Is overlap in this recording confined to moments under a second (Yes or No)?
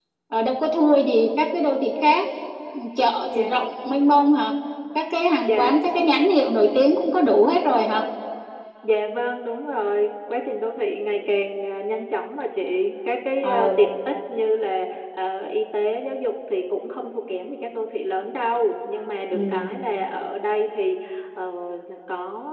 Yes